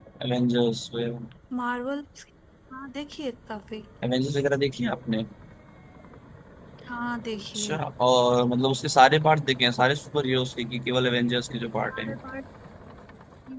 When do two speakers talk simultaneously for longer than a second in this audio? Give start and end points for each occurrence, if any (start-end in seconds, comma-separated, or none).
none